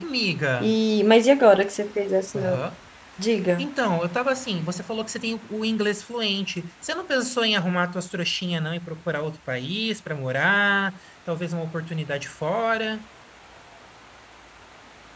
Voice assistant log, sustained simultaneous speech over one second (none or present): none